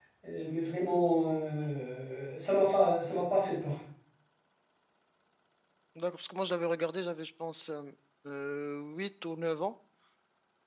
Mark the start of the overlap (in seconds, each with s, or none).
none